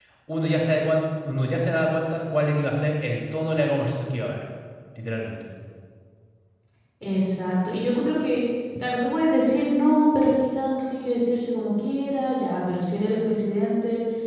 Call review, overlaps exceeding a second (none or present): none